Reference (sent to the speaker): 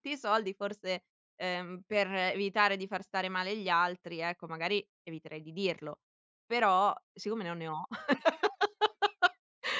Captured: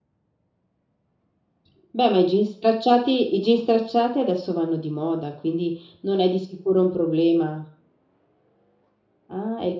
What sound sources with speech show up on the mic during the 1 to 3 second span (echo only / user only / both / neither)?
user only